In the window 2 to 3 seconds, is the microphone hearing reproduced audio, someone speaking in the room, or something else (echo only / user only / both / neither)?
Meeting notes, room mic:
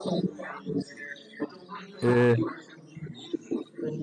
both